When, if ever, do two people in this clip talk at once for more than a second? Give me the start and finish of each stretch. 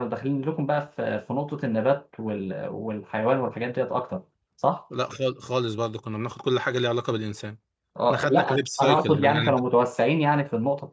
8.1-9.5

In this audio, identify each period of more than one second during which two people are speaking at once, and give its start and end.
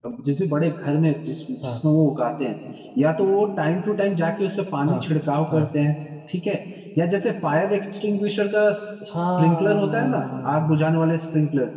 9.1-10.9

